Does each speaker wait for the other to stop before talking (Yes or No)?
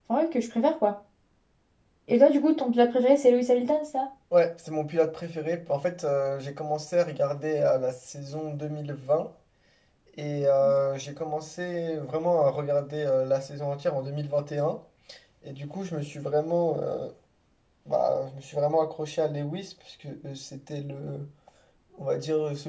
Yes